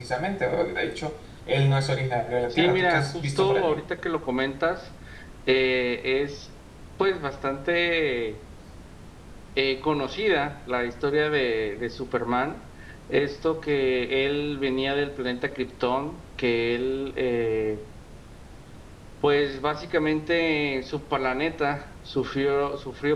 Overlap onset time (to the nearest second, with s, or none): 3 s